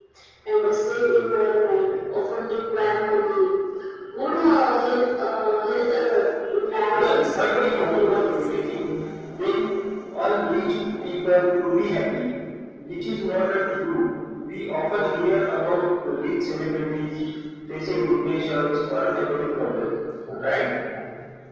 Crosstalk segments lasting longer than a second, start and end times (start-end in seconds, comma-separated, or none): 6.9-8.3